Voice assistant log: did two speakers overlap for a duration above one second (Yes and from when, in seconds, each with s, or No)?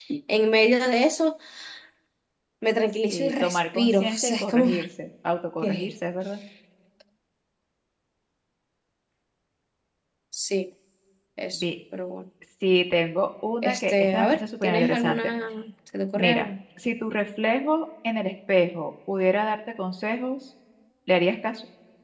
Yes, from 3.1 s